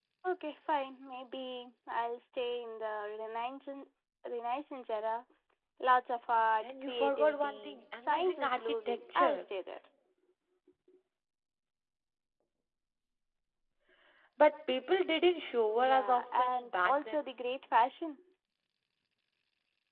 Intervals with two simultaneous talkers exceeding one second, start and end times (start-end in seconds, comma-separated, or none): 6.6-9.4, 15.8-17.2